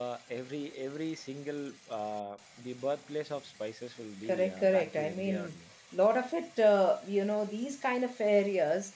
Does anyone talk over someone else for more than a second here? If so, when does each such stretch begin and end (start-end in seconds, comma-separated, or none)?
4.2-5.6